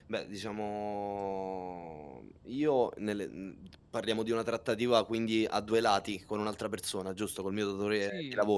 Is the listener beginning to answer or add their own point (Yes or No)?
Yes